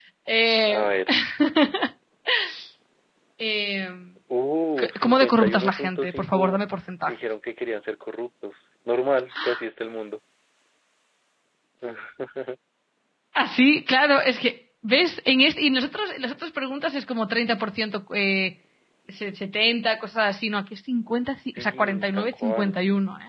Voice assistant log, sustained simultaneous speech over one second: present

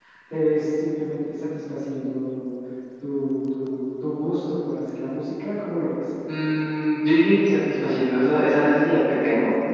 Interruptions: none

